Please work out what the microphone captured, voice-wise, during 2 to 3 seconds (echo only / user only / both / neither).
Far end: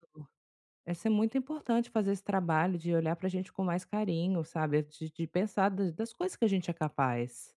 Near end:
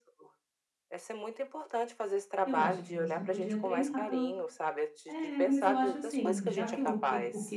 both